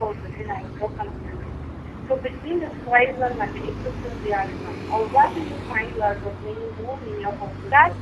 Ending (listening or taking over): taking over